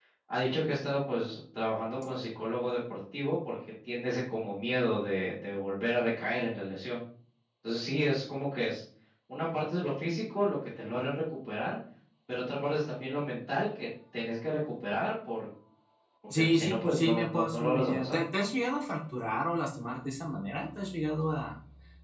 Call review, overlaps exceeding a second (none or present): present